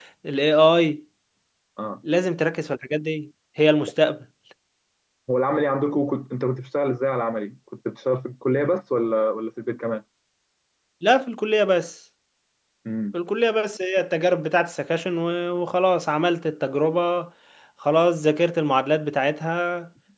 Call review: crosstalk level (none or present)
none